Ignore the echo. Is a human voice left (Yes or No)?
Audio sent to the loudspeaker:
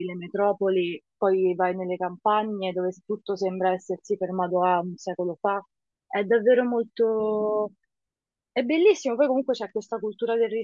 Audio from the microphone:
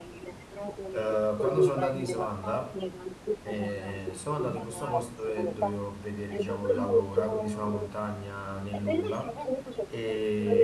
Yes